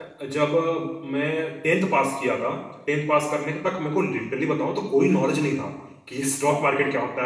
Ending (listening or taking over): listening